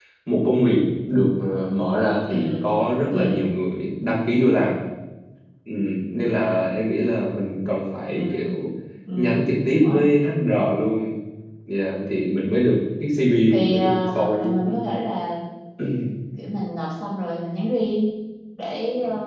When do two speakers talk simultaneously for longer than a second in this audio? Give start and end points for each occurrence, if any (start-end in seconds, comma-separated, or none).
13.5-14.8